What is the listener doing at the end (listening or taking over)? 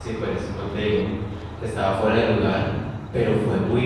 listening